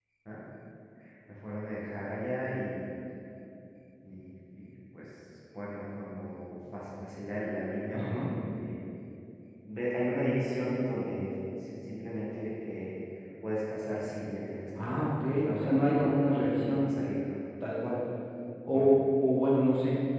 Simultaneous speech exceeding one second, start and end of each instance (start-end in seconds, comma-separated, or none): 14.8-16.9